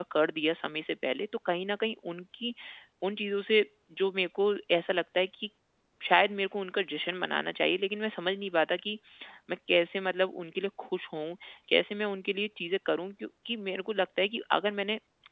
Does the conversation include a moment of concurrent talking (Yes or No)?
No